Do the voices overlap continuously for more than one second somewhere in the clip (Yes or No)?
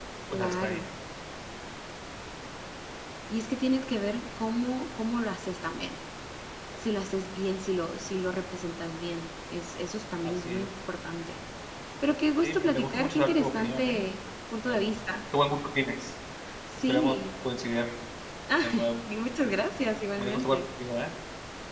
Yes